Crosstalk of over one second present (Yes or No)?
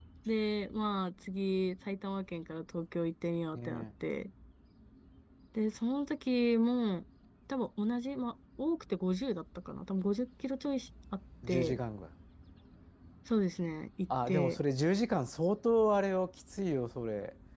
No